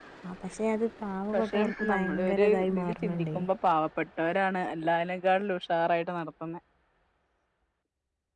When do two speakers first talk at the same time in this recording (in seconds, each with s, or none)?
1.3 s